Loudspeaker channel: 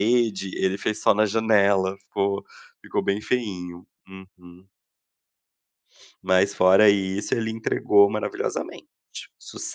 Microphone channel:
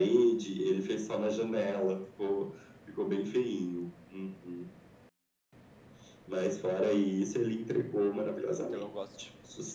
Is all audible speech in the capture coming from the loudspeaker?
No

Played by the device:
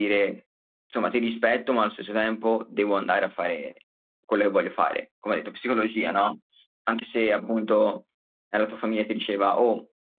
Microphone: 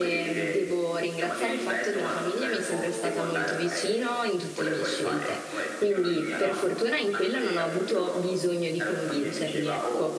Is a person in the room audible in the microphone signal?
Yes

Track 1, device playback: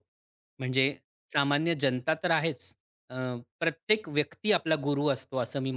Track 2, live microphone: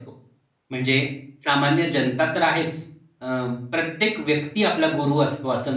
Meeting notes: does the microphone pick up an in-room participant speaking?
No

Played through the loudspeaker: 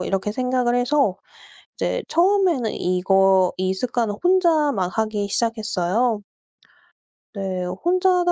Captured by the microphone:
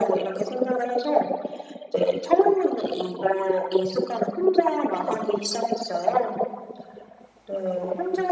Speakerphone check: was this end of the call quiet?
Yes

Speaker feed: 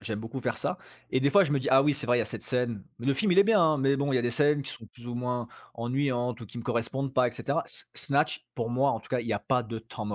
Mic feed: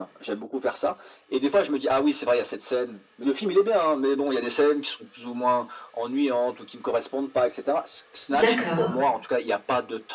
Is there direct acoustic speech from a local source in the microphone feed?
Yes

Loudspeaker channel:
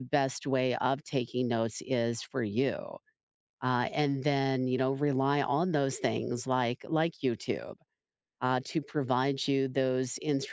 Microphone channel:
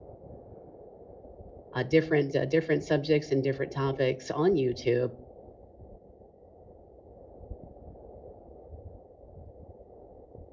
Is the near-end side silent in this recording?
No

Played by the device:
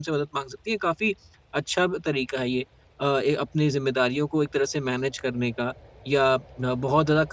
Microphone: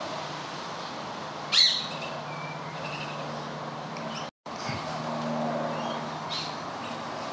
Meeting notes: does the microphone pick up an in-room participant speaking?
No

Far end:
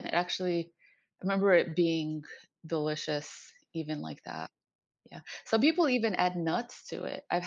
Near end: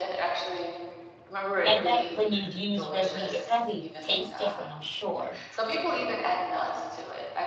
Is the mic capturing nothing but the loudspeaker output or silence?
No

